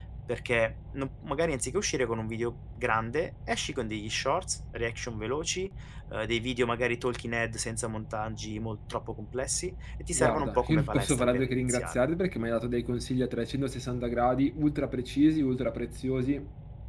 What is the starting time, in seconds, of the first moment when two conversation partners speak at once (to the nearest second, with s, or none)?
10 s